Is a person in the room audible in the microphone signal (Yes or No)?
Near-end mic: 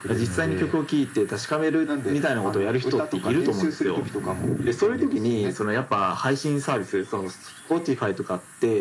No